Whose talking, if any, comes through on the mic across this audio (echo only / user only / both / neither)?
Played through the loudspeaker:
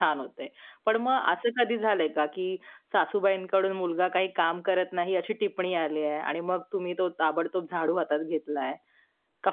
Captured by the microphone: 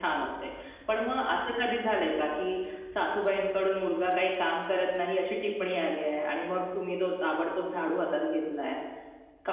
echo only